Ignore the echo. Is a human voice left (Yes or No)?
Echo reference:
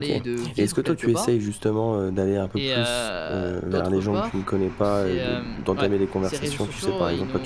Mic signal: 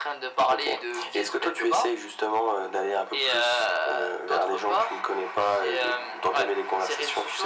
No